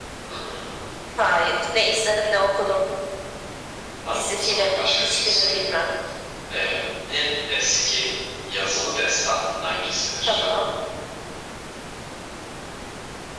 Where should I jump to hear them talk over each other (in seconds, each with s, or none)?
4.1 s